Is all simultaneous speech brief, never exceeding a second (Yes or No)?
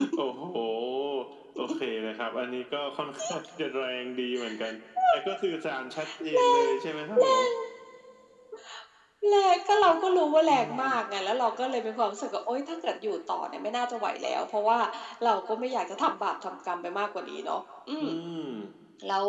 Yes